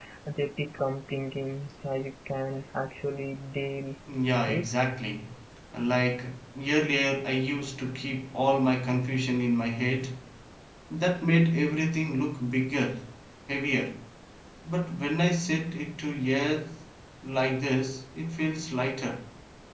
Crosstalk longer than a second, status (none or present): none